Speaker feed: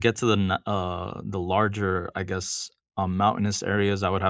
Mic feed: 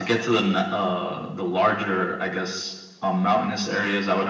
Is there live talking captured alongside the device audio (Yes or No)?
No